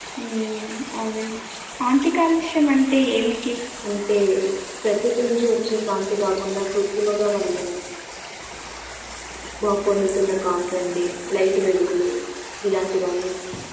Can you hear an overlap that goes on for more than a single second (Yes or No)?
No